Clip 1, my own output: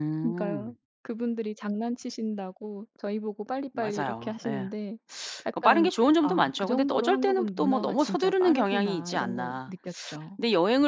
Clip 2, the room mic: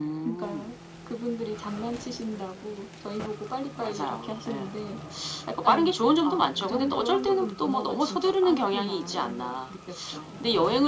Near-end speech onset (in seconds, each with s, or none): none